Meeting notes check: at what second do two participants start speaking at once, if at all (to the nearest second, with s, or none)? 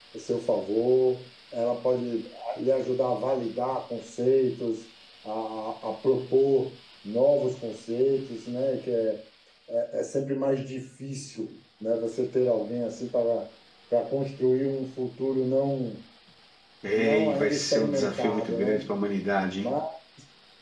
17 s